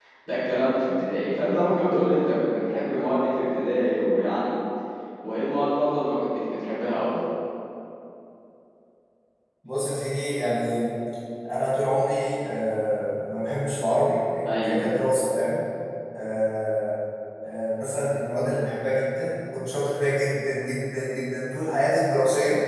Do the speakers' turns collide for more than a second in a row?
No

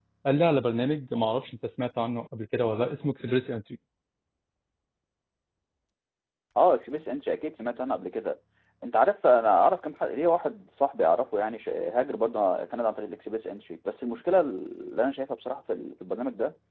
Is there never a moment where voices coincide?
Yes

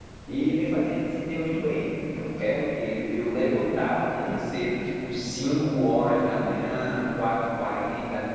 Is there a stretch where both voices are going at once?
No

